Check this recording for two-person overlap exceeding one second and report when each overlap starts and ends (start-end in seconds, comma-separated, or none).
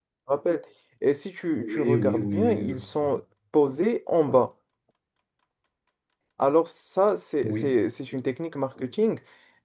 1.6-2.8